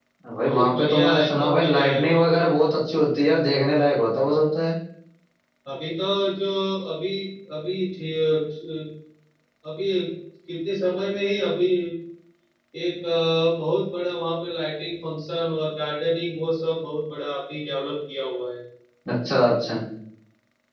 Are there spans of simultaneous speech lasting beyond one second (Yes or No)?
Yes